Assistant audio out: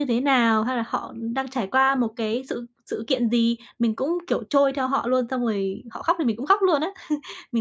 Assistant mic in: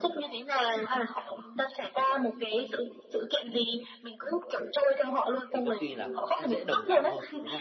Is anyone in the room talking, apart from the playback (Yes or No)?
Yes